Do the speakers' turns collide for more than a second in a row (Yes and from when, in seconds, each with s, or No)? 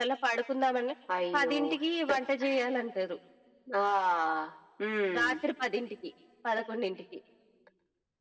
No